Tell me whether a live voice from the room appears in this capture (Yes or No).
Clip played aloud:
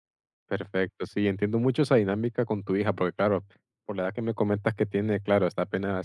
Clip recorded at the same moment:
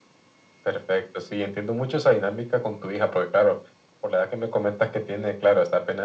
No